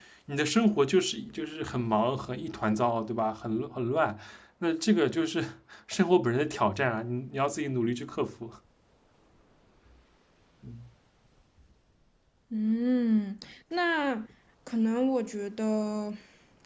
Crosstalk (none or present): none